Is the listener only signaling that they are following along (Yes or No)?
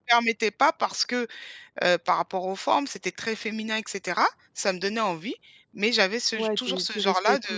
No